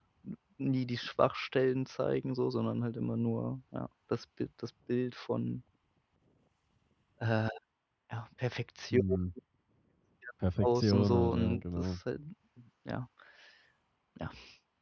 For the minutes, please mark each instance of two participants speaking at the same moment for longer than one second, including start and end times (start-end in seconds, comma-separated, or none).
10.6-11.9